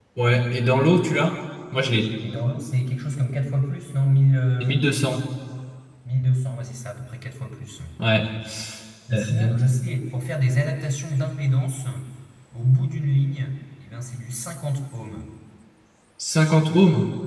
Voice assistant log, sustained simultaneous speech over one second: none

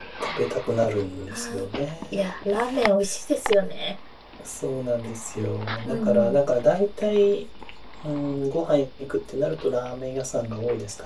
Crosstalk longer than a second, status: none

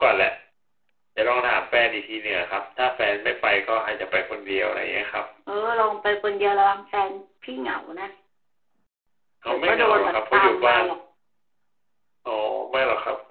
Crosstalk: present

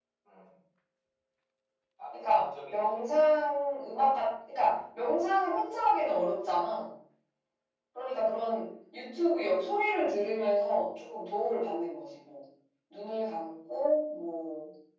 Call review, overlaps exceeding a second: present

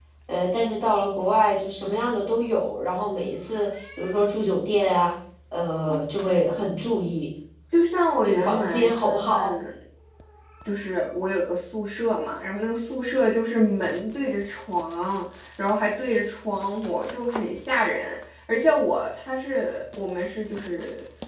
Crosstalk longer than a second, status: present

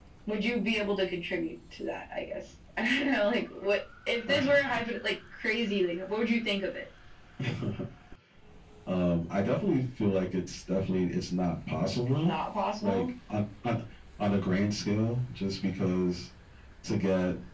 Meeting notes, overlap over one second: none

